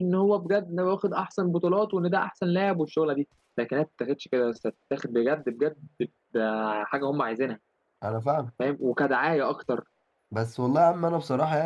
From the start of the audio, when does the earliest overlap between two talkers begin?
none

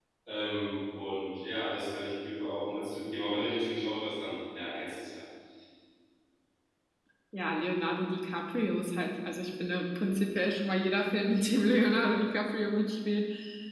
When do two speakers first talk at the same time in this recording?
none

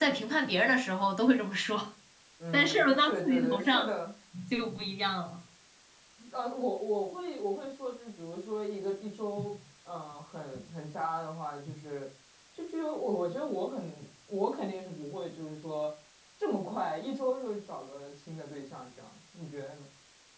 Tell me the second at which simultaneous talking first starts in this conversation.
2.5 s

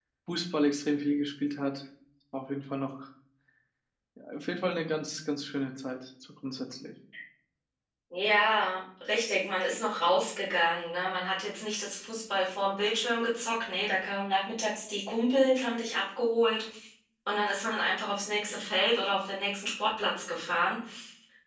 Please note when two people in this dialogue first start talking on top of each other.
none

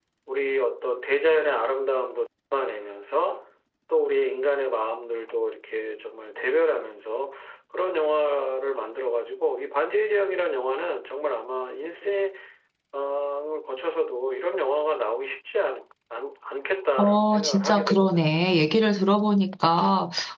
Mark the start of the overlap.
17.0 s

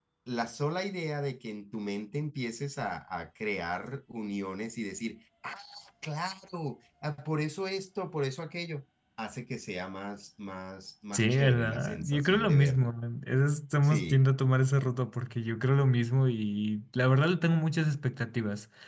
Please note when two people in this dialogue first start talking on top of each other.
11.1 s

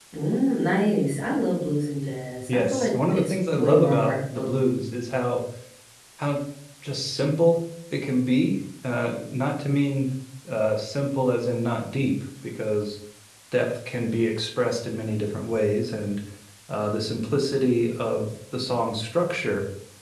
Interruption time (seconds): 2.5 s

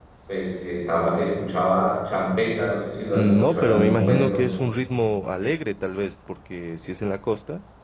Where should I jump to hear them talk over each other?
3.1 s

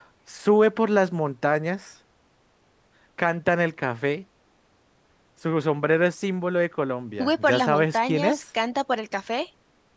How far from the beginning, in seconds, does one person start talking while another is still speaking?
7.2 s

